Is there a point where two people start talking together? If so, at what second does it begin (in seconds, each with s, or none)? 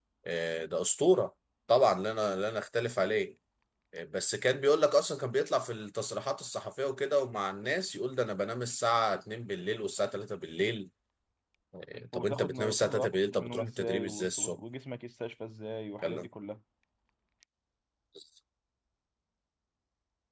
12.1 s